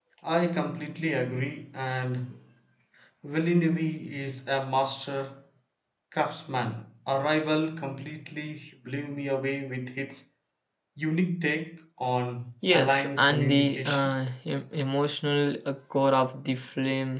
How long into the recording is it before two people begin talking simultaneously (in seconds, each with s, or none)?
12.6 s